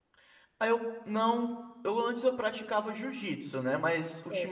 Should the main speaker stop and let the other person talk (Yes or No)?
No